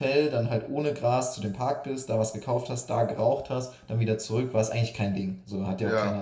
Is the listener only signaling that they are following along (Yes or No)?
Yes